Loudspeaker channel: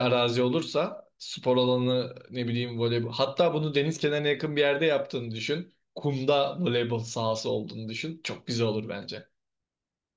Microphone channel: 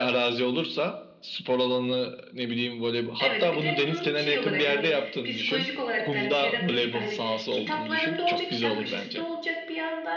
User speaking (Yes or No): Yes